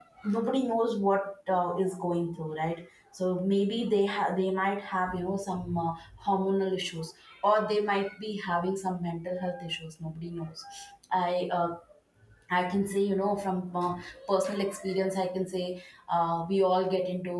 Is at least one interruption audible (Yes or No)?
No